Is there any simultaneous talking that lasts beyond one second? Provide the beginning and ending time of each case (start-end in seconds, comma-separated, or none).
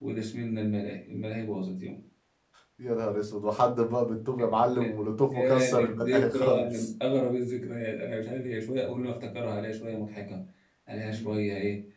5.3-6.9